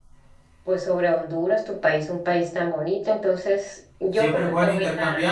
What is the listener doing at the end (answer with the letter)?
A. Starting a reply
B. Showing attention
A